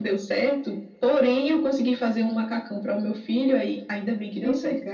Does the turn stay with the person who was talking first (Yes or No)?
No